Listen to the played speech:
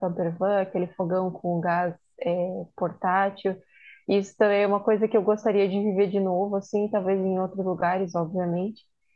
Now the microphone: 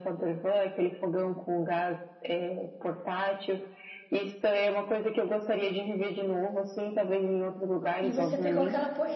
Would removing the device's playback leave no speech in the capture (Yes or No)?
No